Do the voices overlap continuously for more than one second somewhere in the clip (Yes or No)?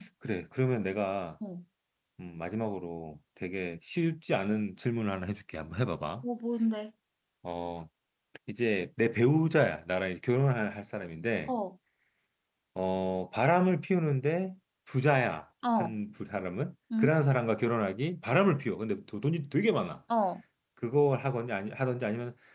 No